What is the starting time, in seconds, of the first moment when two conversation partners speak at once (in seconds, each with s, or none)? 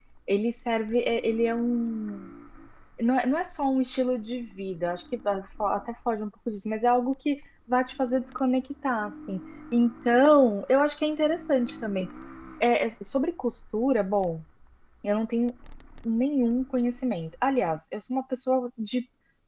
none